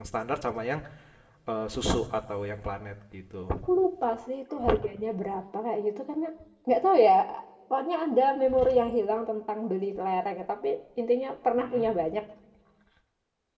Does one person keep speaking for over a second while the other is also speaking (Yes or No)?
No